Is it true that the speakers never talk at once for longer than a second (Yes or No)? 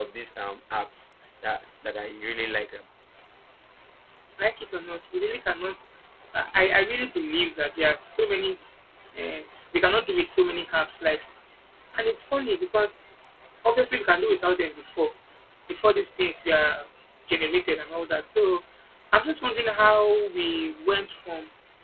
Yes